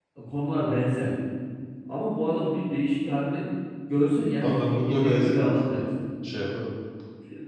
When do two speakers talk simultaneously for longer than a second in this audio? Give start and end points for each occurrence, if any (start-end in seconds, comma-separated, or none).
4.4-5.8